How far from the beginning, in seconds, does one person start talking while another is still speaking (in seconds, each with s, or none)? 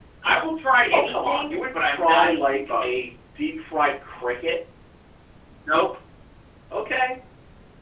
0.9 s